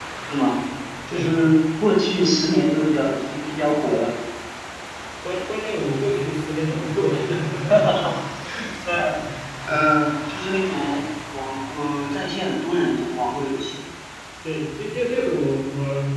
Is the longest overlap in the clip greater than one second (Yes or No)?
No